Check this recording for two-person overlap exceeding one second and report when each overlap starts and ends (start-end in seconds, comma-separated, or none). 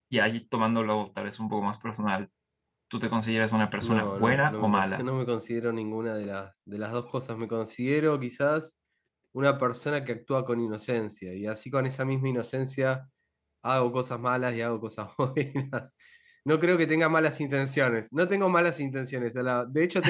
3.8-5.1